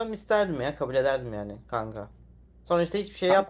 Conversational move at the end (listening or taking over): listening